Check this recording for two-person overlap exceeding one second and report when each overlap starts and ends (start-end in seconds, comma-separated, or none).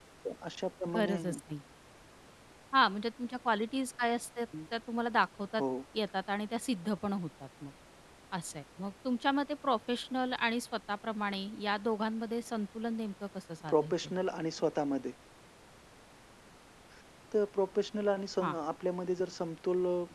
none